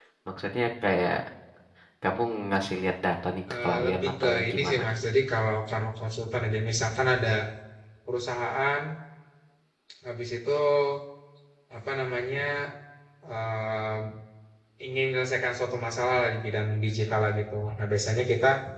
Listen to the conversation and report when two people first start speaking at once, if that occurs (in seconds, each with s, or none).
3.5 s